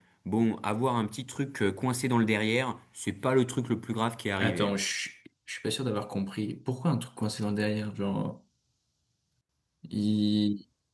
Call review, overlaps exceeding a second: none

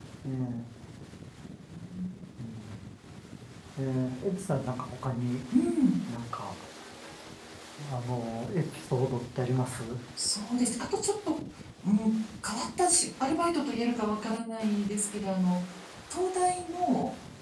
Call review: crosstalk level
none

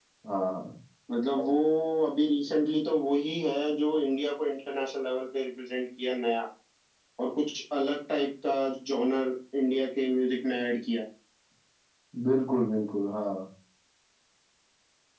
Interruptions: none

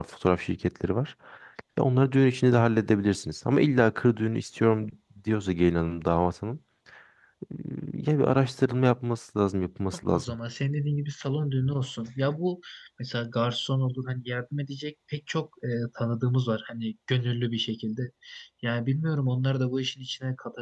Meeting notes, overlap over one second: none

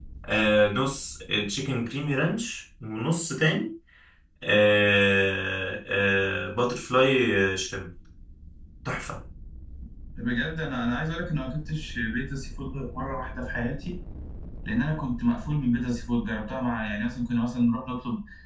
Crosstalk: none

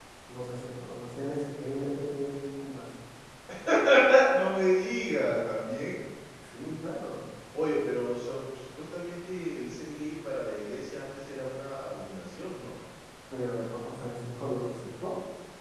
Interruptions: none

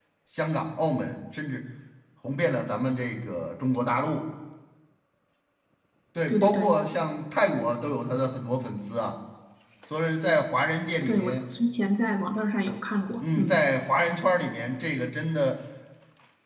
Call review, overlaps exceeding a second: none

